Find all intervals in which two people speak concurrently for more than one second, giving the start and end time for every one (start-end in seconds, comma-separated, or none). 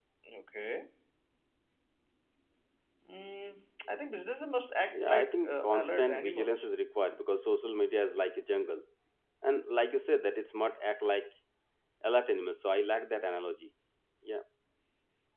4.9-6.7